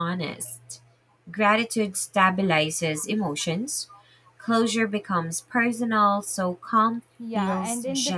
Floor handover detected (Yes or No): Yes